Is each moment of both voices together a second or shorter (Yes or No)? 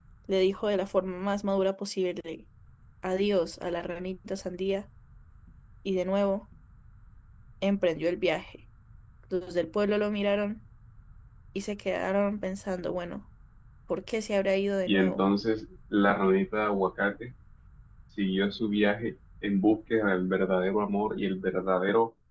Yes